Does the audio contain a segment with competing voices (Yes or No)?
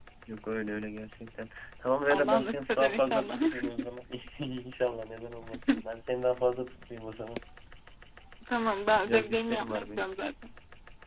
Yes